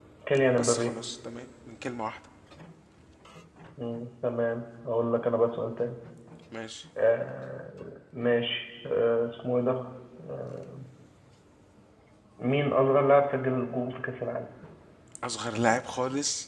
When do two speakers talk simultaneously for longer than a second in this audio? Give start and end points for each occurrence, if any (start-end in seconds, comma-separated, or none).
none